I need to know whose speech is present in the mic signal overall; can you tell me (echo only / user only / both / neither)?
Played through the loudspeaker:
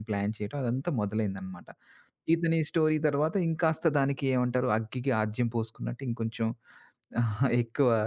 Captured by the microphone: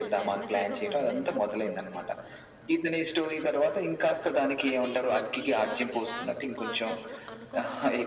both